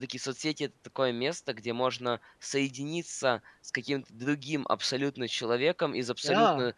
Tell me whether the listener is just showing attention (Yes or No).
Yes